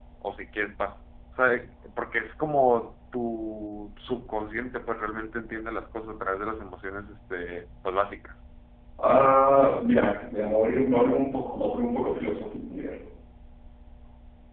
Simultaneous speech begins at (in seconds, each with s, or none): none